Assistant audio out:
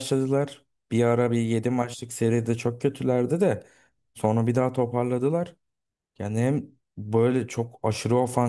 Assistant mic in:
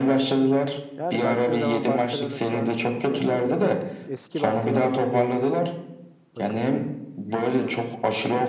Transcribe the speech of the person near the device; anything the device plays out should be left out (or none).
Yani baktığın zaman Barcelona şu an gerçekten eski Barcelona gibi diyebiliyorsun bakıldığında. Şu an için.